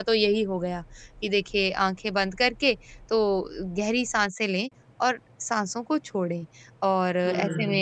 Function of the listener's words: listening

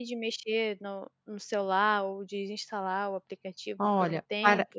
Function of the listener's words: taking over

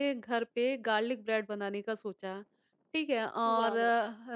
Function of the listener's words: listening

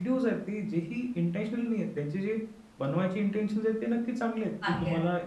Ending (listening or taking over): listening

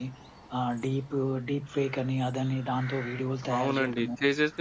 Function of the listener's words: taking over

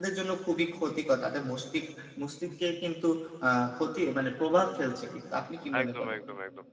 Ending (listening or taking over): taking over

